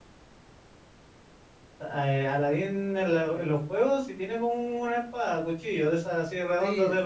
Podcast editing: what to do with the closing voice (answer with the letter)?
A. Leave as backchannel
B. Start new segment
B